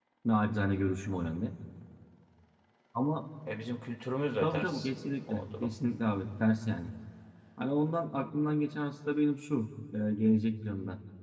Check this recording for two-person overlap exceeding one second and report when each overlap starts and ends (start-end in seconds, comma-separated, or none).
none